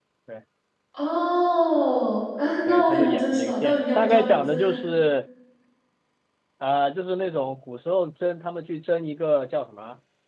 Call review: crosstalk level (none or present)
present